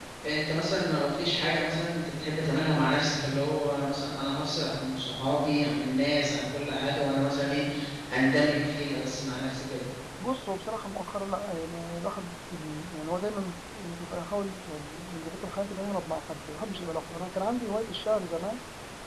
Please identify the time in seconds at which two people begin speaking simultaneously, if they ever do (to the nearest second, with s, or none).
none